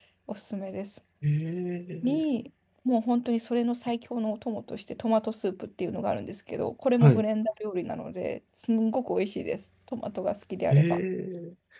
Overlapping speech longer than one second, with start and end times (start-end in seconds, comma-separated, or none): none